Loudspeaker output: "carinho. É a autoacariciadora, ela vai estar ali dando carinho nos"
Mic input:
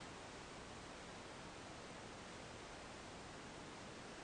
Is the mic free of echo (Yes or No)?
Yes